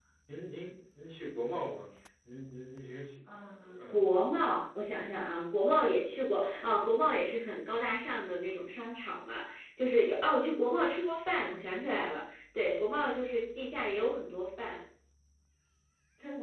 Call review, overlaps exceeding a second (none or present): none